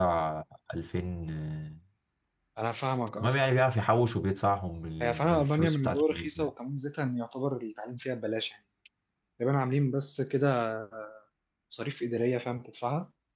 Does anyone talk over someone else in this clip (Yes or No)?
Yes